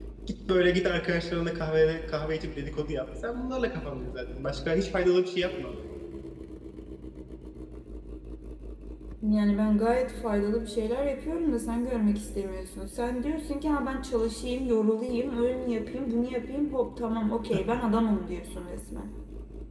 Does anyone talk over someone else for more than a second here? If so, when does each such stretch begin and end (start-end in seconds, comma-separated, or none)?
none